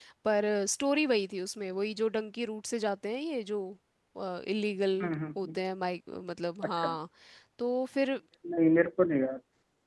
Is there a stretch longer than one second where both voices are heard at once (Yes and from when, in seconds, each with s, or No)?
No